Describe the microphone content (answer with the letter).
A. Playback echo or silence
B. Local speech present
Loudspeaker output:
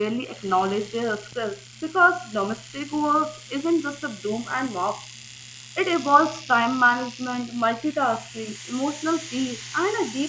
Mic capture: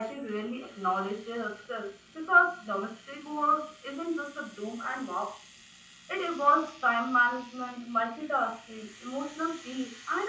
A